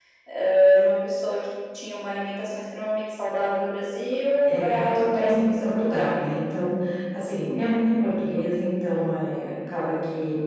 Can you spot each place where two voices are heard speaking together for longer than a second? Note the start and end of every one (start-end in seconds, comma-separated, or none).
4.6-6.1